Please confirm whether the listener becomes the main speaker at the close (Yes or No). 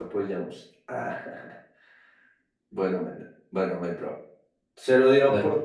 No